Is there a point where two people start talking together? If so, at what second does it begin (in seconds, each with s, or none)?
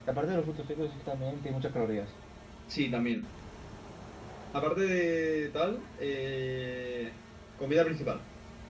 none